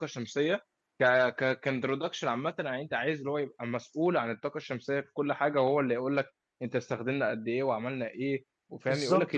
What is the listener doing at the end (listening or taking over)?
taking over